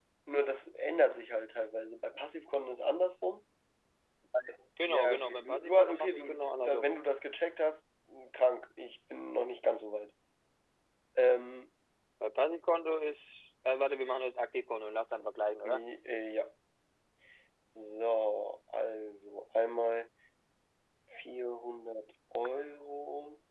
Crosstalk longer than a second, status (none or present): present